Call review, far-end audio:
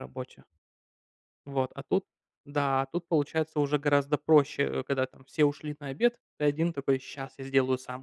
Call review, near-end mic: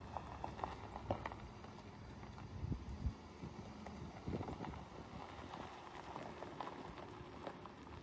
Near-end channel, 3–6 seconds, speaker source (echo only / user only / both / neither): neither